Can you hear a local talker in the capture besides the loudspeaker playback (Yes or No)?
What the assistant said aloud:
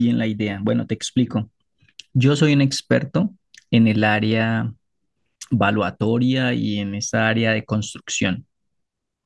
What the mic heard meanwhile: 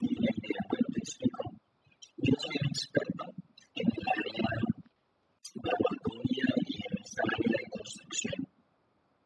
No